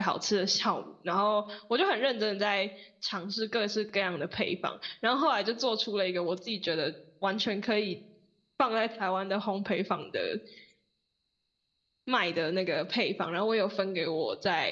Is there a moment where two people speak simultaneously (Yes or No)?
No